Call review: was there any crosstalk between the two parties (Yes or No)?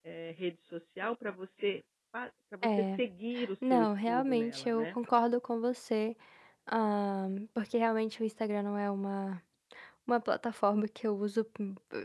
Yes